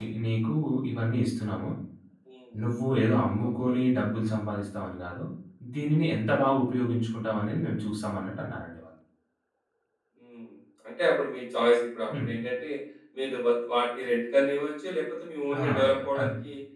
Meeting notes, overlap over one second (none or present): none